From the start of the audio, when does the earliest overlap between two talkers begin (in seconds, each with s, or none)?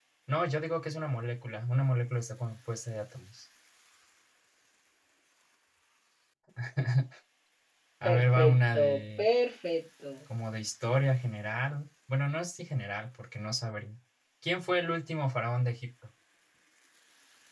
8.0 s